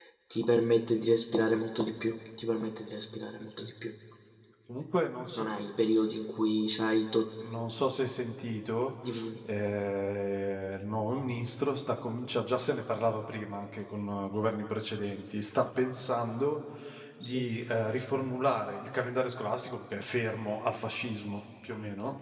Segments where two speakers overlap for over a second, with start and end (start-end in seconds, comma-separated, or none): none